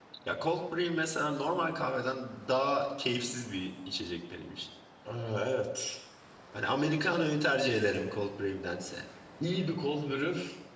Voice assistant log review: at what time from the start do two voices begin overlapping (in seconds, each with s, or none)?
none